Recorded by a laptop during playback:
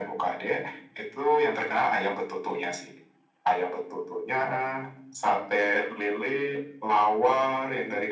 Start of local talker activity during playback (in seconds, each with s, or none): none